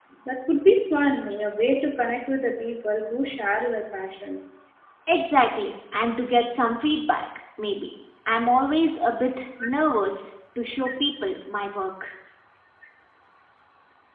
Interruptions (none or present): none